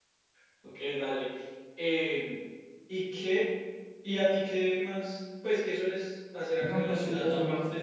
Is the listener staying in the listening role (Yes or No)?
No